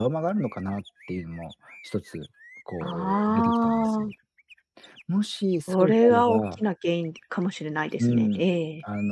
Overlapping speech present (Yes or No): Yes